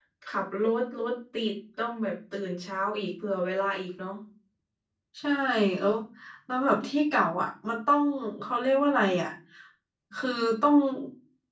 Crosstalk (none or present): none